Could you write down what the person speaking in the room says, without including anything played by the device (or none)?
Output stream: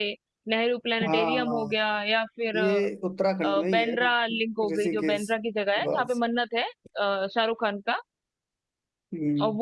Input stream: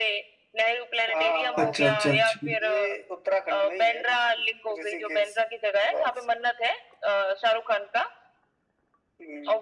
अच्छा अच्छा अच्छा